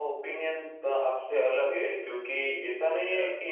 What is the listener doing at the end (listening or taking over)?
listening